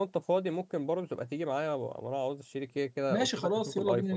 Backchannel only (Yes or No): No